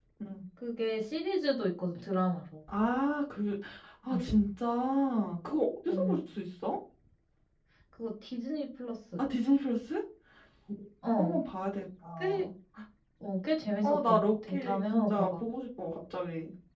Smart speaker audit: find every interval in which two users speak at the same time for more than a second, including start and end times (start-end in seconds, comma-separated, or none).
13.8-15.4